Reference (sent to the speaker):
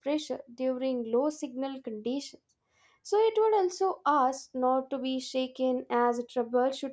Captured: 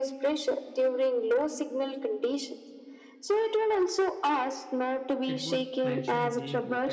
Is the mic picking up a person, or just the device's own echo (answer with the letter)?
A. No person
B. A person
B